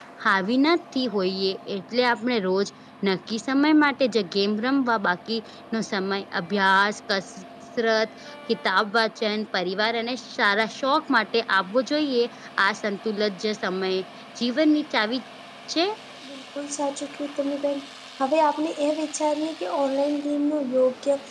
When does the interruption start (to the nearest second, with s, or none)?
none